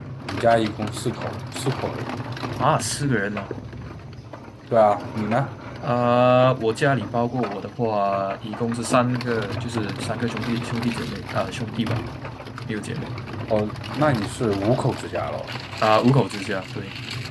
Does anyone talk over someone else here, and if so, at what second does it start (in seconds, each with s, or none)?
none